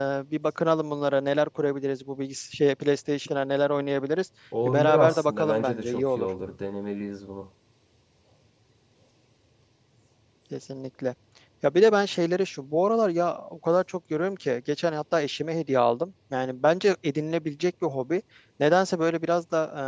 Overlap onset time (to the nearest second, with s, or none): 5 s